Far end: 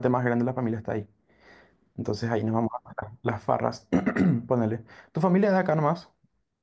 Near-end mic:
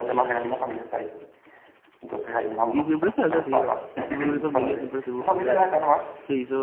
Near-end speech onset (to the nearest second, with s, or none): 3 s